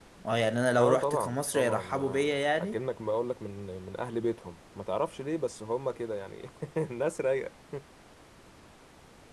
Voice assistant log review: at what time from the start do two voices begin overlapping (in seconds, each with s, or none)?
0.8 s